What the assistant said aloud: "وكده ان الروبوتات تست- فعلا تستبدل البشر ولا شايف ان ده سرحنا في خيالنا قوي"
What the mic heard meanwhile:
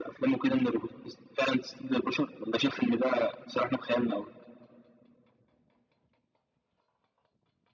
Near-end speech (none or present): none